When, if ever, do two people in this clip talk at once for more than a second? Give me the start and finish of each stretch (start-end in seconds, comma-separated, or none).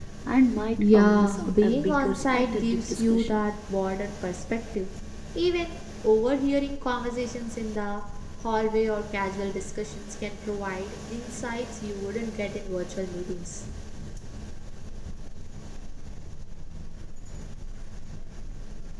0.8-3.4